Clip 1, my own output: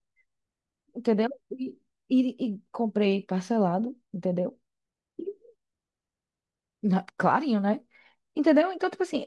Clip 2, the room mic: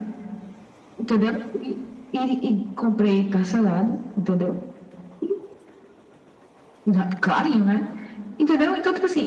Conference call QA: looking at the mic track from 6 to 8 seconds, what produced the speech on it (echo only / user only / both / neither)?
echo only